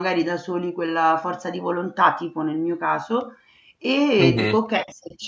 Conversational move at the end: listening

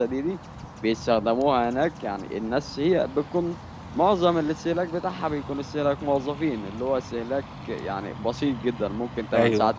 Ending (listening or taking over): listening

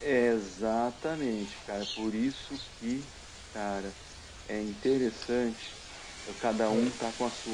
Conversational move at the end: listening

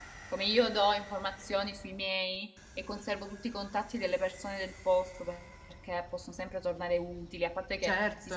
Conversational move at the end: listening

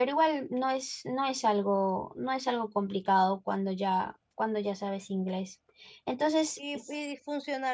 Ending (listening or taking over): taking over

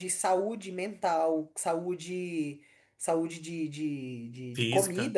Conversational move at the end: listening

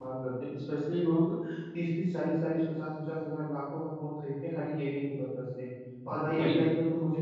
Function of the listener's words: listening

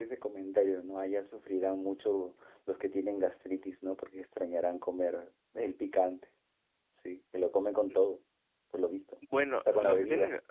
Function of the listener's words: taking over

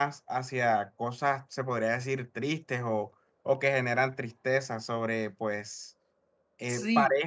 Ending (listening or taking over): listening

